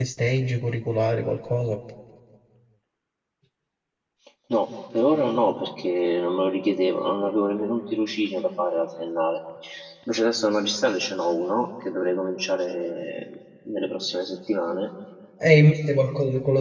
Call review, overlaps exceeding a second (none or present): none